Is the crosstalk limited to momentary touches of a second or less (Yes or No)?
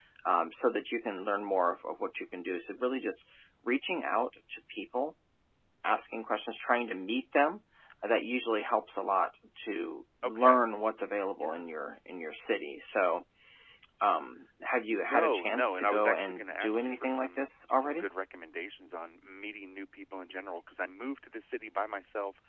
No